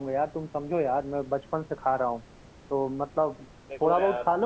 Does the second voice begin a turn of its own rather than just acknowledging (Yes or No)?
No